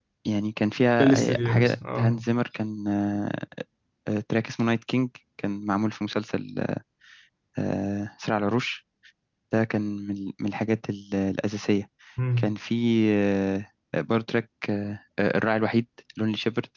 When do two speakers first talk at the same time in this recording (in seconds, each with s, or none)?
1.0 s